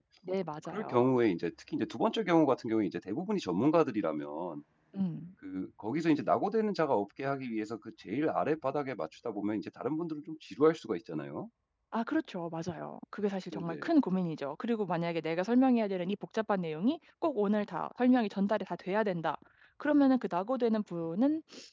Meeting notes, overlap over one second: none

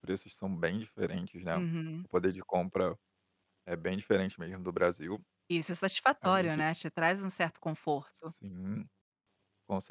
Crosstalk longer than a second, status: none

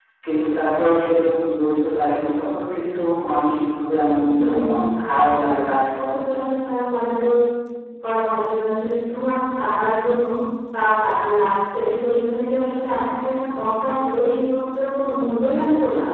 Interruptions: present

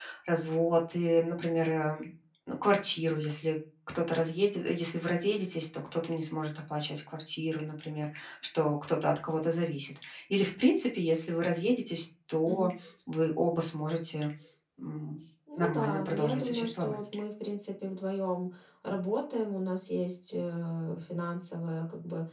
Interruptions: present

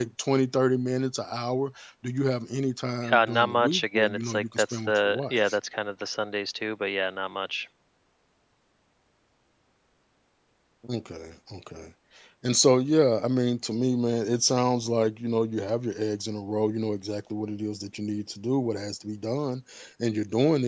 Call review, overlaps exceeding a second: present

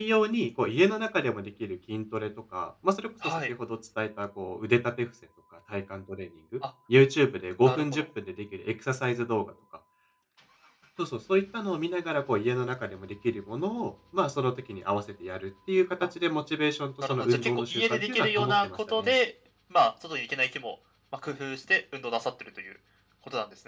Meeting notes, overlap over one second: present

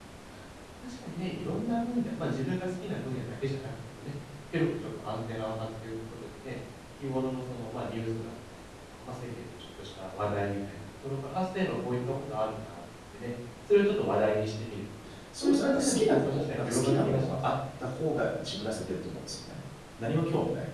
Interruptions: present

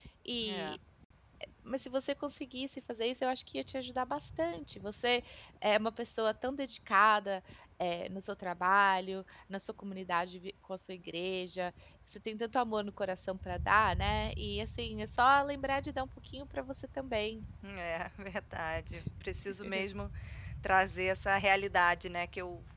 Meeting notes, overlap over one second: none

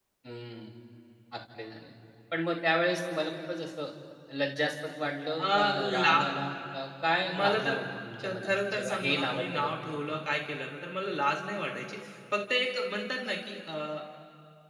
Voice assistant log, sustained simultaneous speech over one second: present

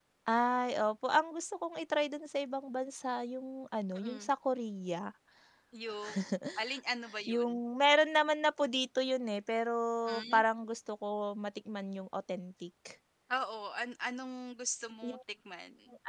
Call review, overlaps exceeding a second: none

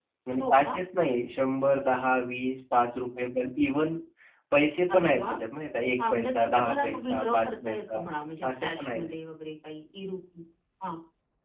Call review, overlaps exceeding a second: present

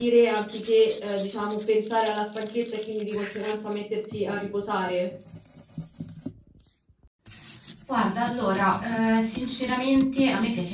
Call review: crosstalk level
none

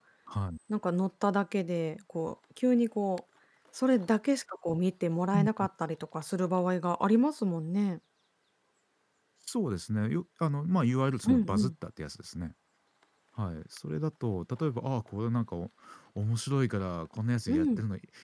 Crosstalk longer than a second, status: none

